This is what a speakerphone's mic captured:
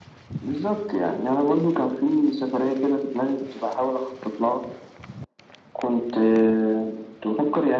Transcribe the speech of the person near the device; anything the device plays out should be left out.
none

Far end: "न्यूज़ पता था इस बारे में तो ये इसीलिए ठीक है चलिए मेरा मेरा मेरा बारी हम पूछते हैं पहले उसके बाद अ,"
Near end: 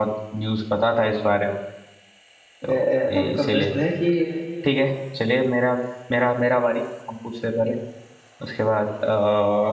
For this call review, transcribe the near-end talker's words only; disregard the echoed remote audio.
अ, आपका प्रश्न है कि

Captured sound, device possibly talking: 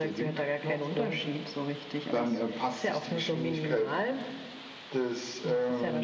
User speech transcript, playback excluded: none

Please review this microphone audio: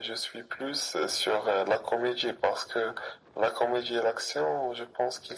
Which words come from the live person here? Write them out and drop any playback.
none

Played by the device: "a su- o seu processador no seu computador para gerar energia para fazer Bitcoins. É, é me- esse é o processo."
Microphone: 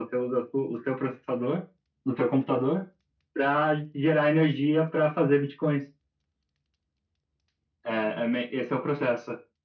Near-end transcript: none

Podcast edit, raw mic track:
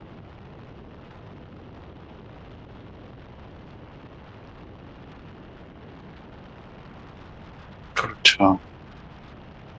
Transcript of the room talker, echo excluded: 그렇죠.

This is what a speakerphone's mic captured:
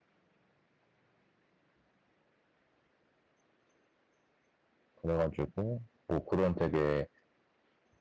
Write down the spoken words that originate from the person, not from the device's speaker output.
그래가지고 뭐 그런 되게

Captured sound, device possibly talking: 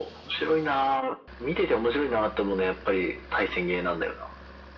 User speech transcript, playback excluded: none

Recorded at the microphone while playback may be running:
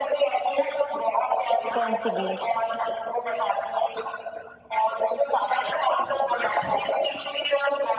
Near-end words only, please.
कौन सी बीन्स

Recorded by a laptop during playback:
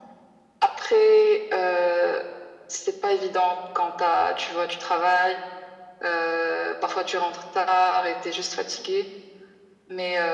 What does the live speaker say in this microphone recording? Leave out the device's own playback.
none

